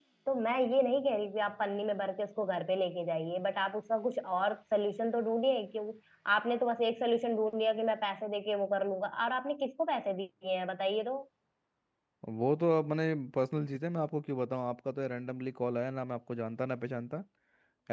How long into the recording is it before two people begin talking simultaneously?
none

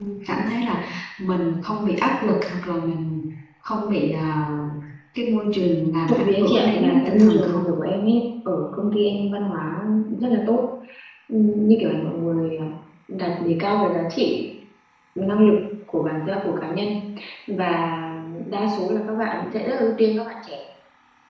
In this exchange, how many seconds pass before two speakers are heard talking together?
6.1 s

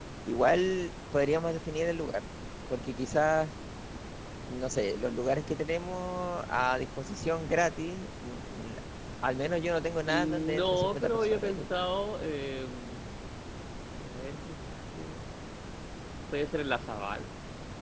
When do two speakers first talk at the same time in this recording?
10.1 s

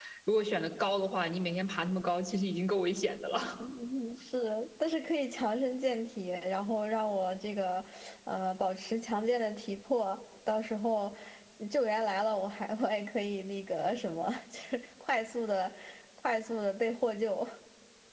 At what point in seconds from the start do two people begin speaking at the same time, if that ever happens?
none

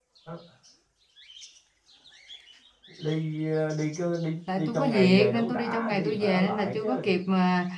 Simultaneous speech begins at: 4.5 s

